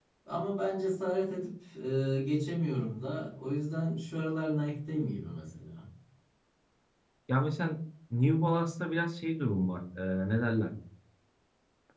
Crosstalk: none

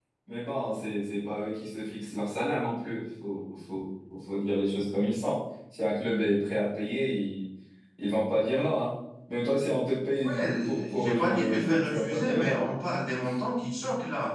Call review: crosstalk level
present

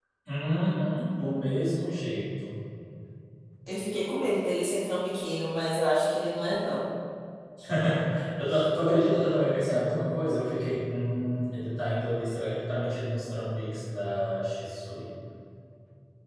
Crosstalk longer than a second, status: none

